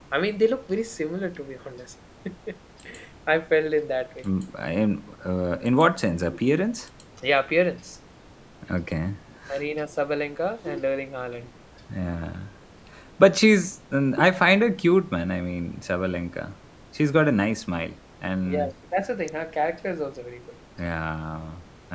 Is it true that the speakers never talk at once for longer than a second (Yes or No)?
Yes